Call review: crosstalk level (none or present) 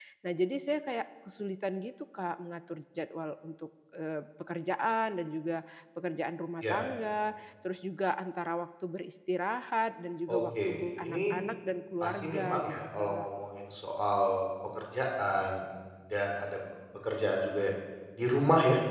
present